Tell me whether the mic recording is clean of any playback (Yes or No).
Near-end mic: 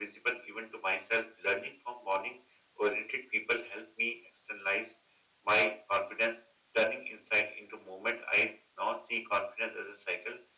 No